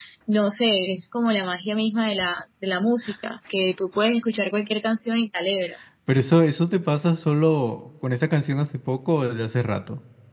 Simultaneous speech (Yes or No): No